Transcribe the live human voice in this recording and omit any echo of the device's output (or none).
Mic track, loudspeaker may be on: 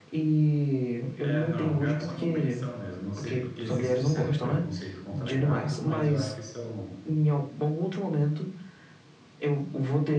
É, não, gatos normalmente são mesmo. Não sei porque existe certo preconceito contra gatos, mas eu acho que são,